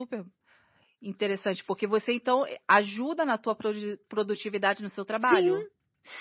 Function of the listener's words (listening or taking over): taking over